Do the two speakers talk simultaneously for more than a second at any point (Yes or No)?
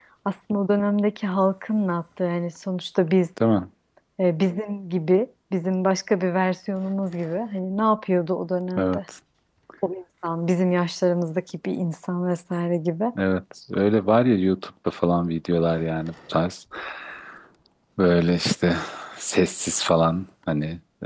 No